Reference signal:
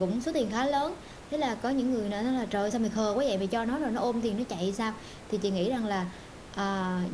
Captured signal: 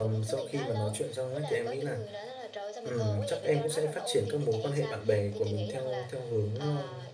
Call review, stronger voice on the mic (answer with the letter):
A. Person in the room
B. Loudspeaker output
A